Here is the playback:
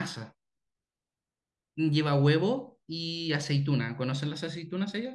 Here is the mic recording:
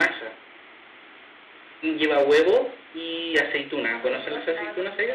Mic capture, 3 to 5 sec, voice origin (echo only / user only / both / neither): both